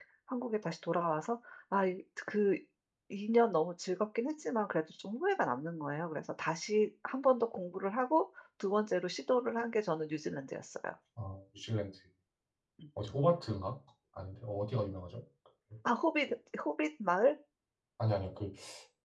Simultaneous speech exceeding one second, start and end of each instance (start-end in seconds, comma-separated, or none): none